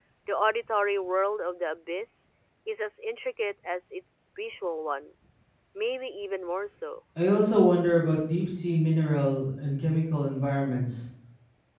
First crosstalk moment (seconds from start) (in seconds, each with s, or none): none